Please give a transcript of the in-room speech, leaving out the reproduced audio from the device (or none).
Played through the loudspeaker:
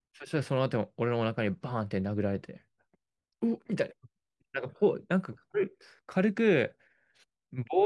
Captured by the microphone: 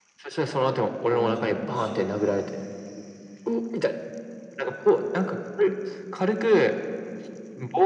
もう勘弁しろよ。